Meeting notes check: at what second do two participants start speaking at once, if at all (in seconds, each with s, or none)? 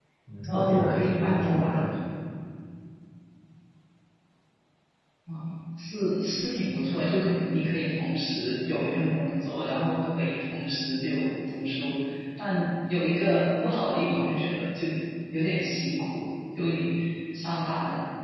0.5 s